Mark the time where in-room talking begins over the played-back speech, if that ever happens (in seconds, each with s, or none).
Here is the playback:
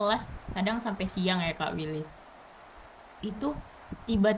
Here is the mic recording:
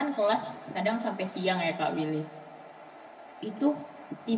none